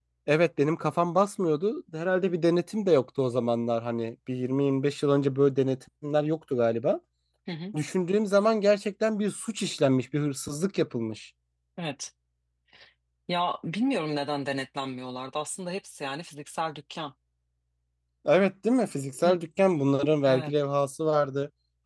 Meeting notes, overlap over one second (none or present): none